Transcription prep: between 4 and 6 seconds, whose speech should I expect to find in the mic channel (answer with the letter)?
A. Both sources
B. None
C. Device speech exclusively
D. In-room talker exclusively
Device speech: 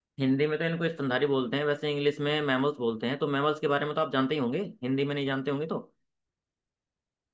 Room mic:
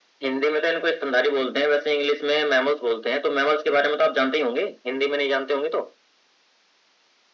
C